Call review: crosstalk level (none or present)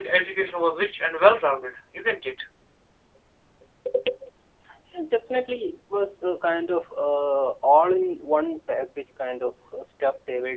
none